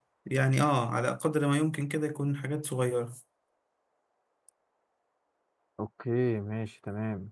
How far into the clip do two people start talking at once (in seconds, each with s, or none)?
none